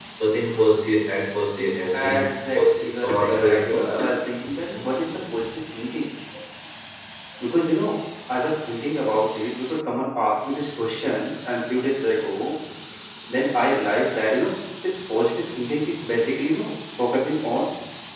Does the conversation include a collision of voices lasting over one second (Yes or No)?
Yes